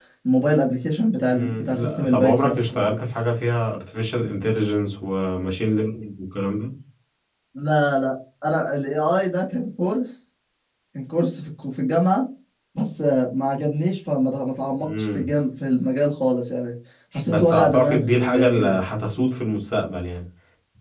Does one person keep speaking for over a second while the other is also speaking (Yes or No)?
Yes